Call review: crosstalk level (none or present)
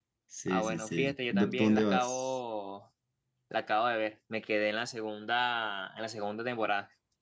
present